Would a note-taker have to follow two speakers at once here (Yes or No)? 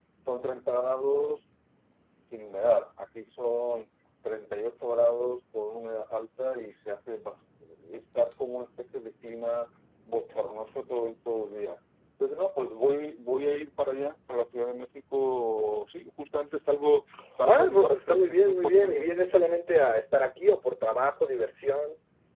Yes